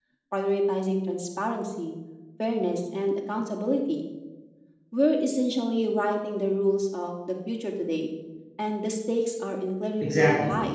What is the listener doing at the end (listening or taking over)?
taking over